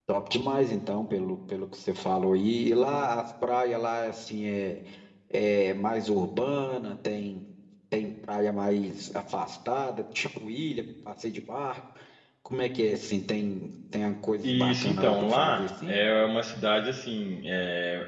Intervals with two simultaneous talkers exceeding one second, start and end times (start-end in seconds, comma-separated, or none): 14.4-15.9